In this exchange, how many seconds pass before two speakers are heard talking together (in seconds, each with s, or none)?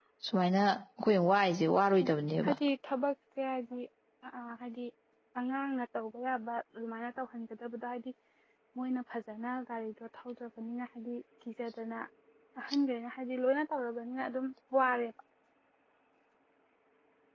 none